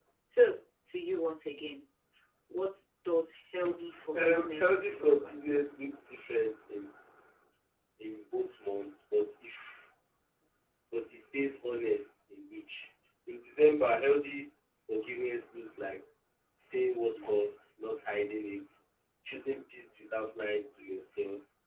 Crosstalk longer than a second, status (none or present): present